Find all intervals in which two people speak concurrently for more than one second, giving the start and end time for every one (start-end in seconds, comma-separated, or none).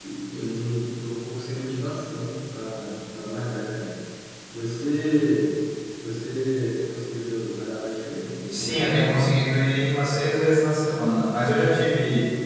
8.5-9.8